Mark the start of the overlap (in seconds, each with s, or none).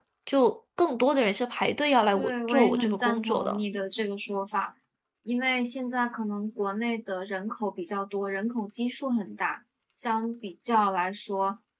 2.1 s